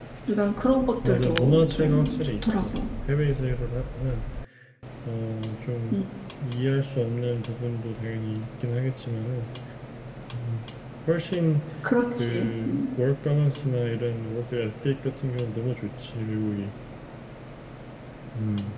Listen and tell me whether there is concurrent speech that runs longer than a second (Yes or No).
Yes